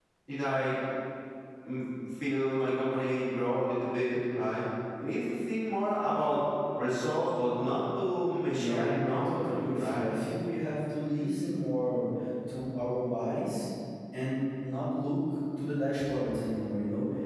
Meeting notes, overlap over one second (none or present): present